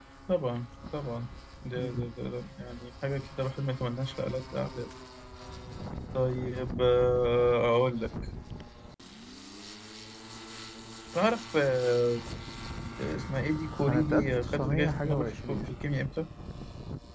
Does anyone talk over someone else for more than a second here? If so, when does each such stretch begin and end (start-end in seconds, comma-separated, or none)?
13.9-15.7